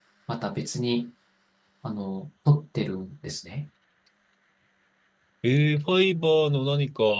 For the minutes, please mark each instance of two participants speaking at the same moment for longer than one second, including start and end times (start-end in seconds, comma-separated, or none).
none